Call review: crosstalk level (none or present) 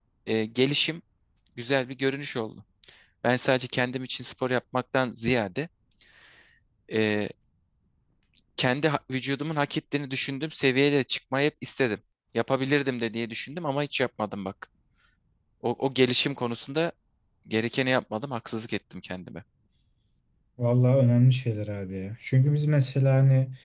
none